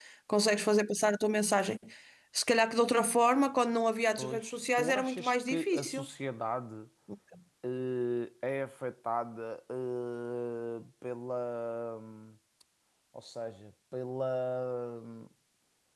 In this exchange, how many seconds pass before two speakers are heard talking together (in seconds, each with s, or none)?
4.2 s